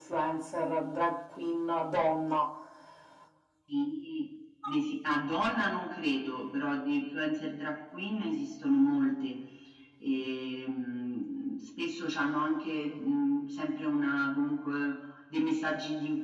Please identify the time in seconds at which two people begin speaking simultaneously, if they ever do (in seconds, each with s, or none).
none